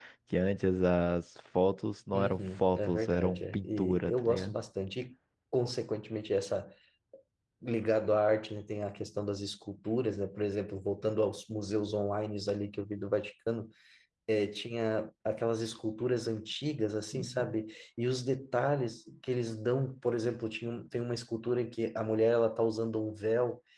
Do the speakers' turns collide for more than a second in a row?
Yes, from 2.1 s

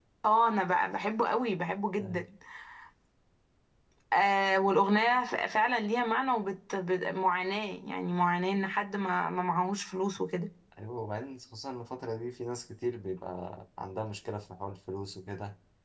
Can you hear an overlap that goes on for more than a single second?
No

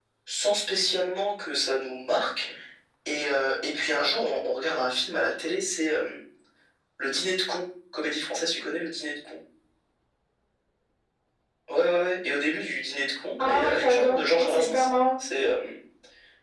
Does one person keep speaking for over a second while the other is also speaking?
Yes, from 13.4 s

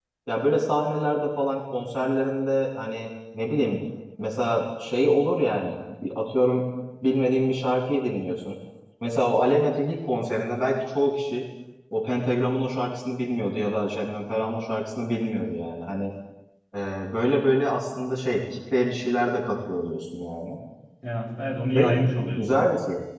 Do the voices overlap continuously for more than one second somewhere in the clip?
No

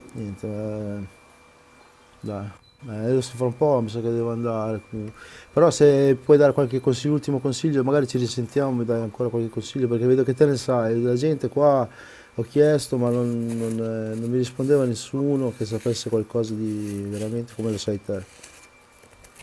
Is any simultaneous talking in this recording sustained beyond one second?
No

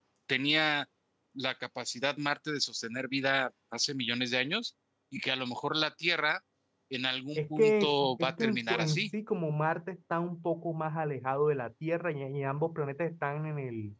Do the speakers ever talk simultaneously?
Yes, from 7.4 s

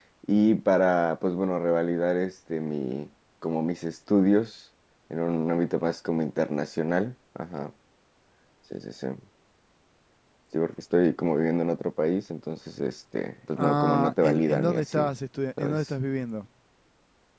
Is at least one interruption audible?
Yes, from 13.6 s

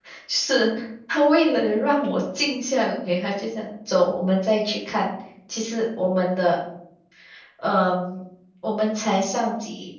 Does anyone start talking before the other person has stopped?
No

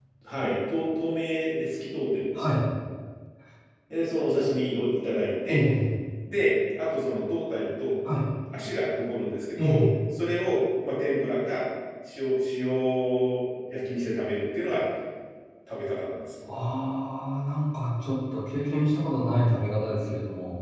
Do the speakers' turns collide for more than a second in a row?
No

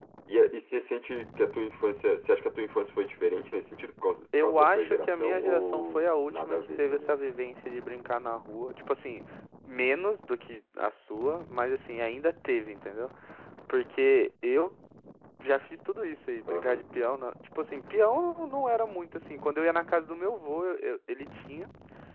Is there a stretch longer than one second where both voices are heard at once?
Yes, from 4.4 s

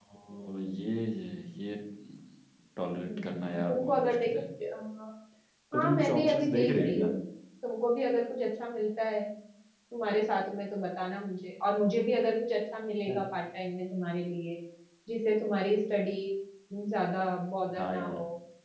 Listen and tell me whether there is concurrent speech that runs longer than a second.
Yes, from 3.0 s

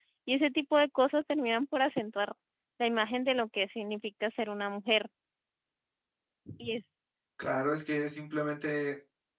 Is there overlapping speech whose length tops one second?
No

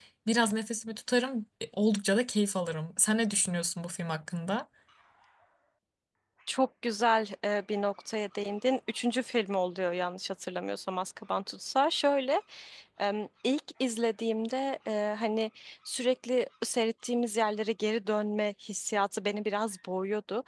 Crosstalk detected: No

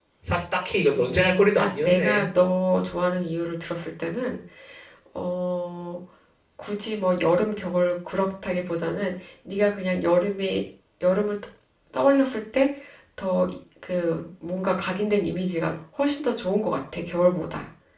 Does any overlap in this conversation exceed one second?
Yes, from 0.9 s

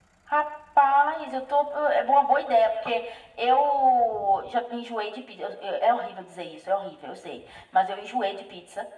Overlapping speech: No

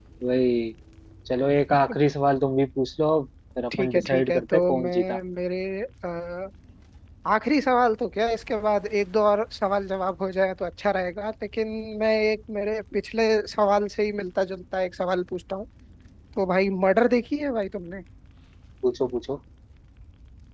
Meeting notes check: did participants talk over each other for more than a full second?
Yes, from 3.7 s

